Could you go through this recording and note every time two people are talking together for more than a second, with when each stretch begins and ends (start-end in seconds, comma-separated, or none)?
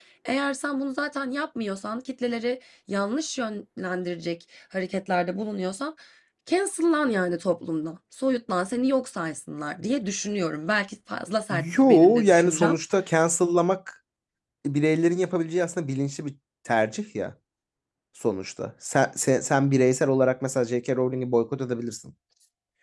11.5-12.8